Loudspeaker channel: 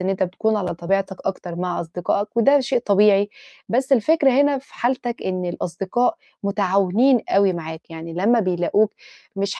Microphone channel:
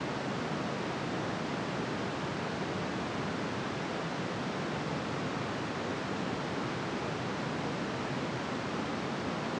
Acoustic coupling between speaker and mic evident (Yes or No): No